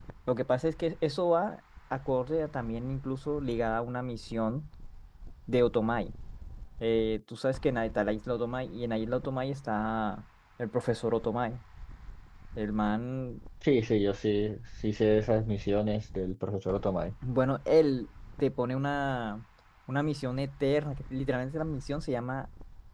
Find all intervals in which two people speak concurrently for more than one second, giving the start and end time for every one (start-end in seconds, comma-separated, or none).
none